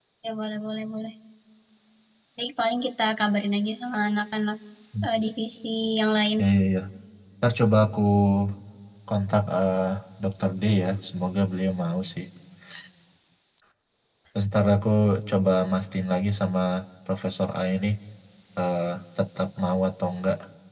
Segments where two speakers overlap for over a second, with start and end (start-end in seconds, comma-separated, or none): none